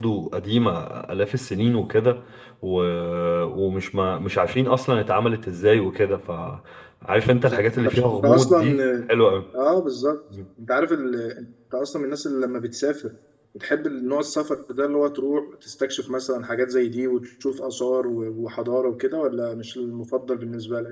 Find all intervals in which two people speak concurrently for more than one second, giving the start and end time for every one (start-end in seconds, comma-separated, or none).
7.3-8.8